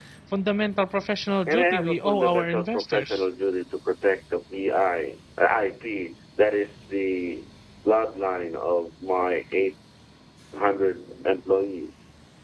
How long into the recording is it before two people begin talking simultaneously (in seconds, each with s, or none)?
1.5 s